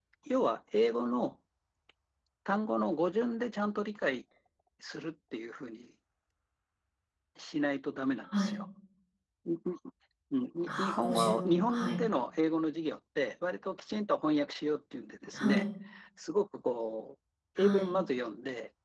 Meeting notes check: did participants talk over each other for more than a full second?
Yes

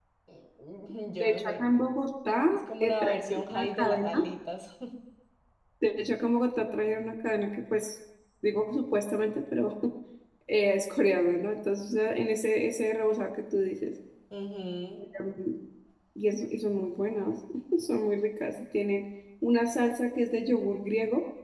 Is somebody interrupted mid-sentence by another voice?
Yes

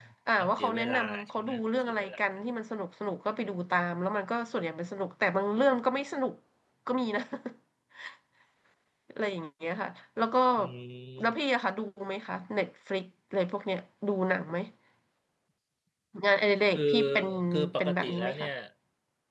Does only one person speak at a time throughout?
No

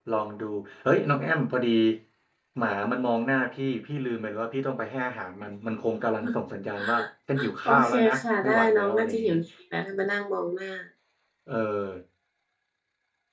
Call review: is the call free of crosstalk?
No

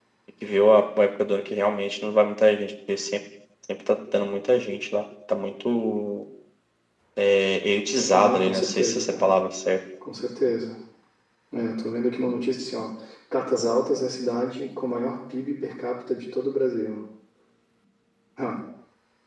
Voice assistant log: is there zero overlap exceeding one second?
No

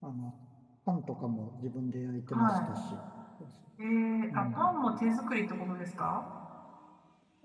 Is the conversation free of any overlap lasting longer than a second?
Yes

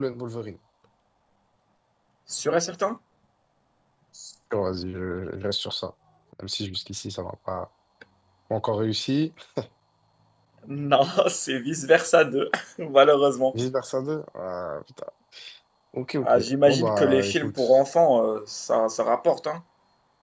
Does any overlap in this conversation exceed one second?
Yes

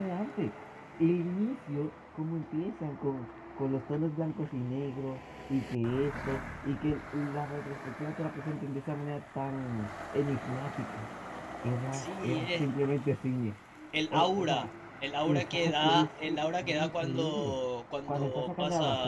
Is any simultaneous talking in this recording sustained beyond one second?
Yes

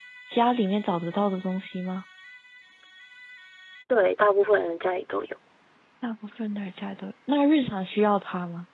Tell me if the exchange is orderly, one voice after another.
Yes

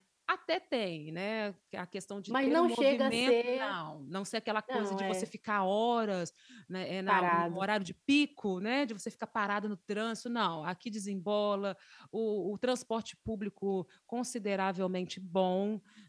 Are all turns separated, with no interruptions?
No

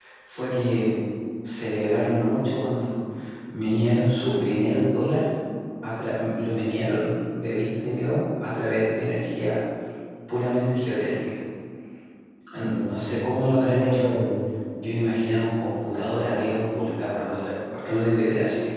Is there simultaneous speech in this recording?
Yes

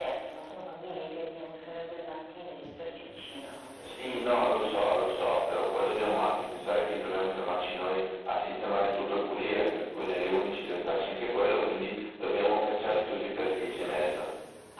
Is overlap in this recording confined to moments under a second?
No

